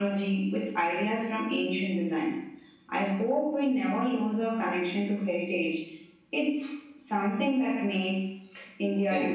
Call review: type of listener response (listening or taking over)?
taking over